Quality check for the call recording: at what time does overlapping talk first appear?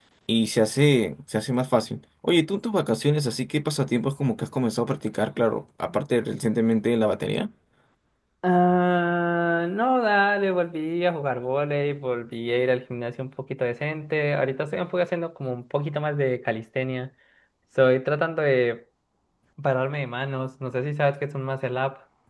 none

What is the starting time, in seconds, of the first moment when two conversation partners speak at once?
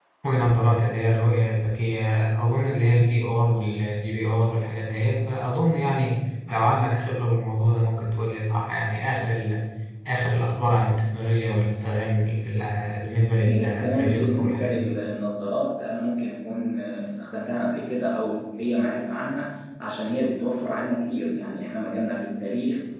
13 s

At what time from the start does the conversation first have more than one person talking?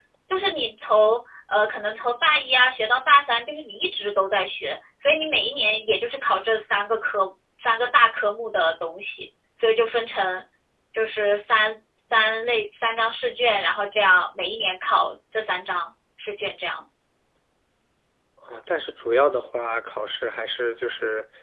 none

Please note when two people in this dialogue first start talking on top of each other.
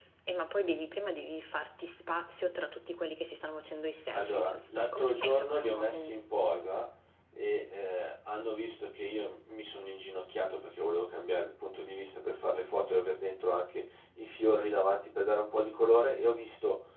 4 s

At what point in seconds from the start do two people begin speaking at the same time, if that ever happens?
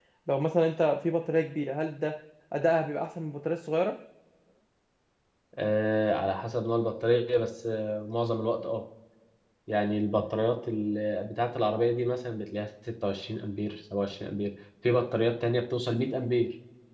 none

